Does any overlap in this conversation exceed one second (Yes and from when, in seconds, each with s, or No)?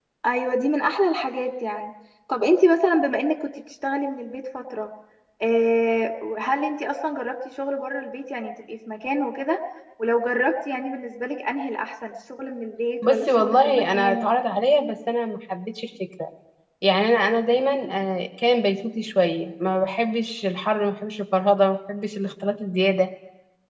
Yes, from 13.0 s